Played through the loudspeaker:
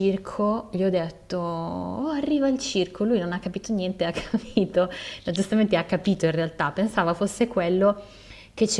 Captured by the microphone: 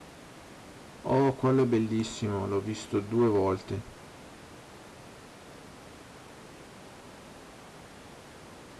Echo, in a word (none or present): none